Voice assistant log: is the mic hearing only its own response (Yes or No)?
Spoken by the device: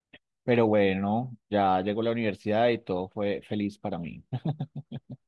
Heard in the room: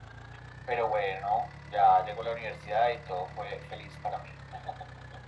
Yes